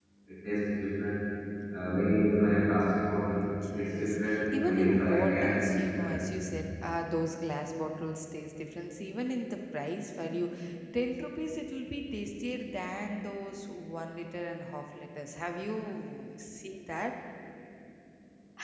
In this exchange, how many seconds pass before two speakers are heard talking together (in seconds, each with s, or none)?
3.7 s